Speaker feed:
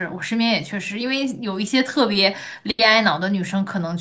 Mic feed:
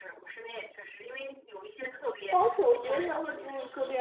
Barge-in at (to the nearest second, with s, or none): 2 s